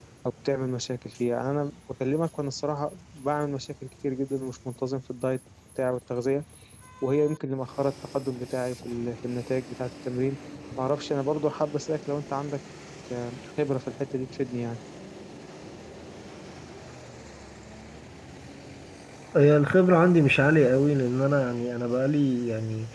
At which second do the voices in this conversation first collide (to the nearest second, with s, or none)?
none